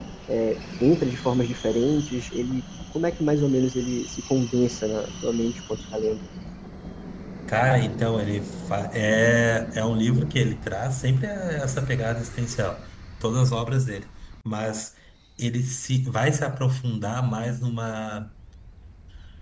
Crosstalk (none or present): none